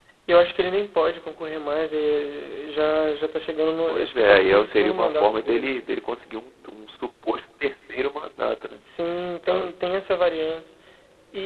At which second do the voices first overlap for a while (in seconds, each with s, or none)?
3.9 s